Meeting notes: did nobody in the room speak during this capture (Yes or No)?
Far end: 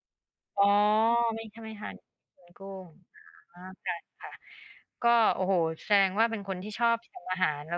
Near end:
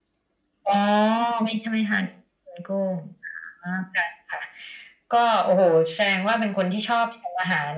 Yes